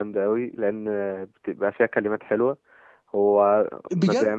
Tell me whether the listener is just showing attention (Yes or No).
No